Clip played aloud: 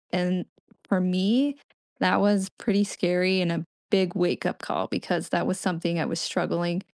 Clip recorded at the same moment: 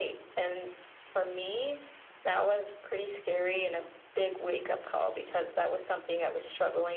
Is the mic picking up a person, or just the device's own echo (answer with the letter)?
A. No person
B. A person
A